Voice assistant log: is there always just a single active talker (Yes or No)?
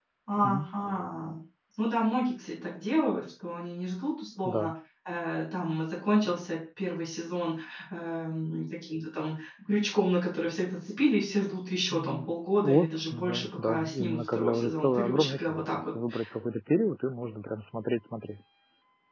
No